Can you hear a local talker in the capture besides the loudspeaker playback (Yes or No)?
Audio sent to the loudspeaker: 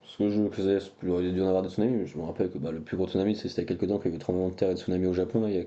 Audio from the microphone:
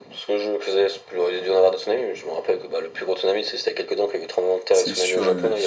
Yes